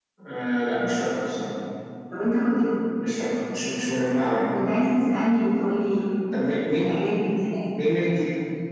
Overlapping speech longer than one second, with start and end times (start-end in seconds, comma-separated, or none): none